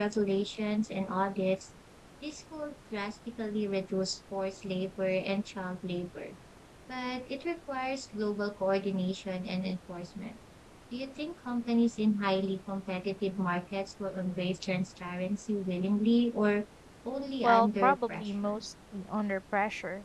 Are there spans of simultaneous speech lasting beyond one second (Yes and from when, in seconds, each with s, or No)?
Yes, from 17.4 s